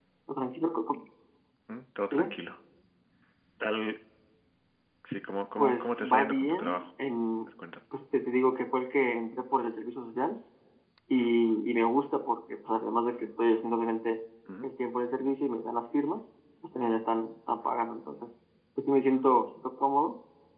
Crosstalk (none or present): present